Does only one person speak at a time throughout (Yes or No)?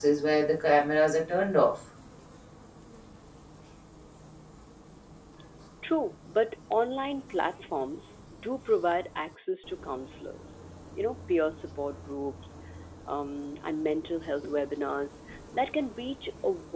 Yes